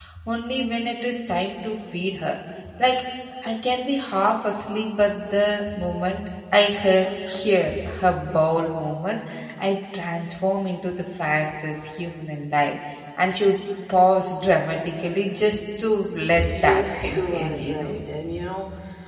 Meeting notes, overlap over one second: present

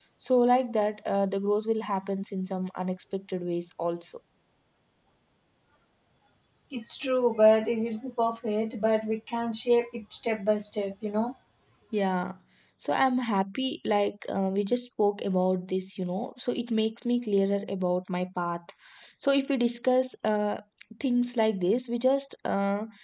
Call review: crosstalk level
none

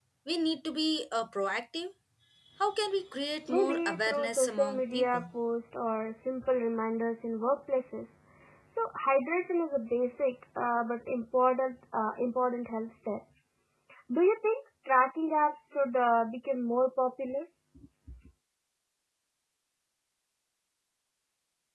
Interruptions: present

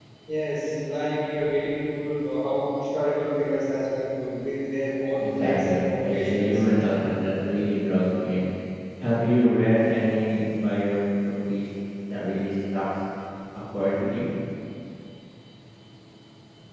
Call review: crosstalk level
present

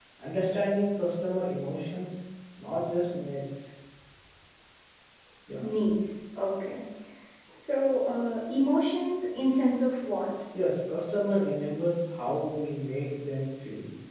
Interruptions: none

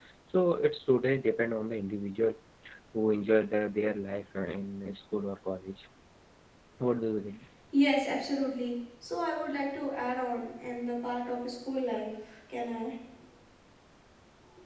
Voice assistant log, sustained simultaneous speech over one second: none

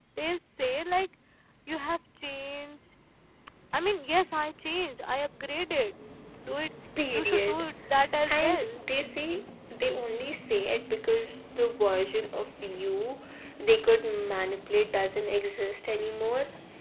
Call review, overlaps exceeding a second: none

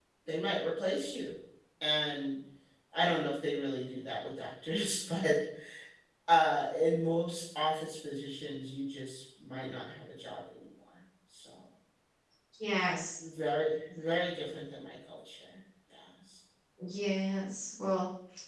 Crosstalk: none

